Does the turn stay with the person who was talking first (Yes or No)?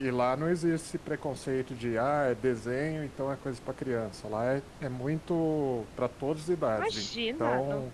No